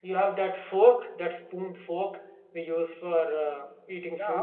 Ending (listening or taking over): taking over